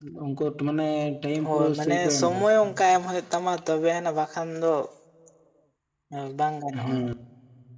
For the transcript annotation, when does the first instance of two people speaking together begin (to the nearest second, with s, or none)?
1 s